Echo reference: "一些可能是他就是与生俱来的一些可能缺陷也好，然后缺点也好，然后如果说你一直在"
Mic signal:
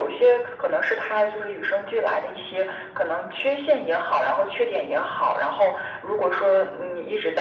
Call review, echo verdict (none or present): present